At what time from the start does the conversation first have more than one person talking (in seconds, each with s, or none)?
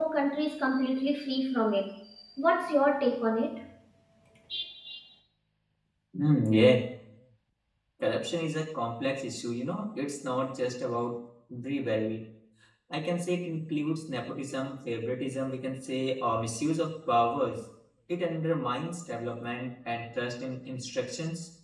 none